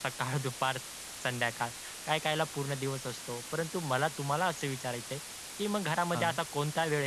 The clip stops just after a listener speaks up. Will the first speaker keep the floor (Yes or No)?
Yes